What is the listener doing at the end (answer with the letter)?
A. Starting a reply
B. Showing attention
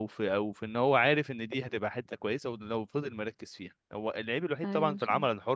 B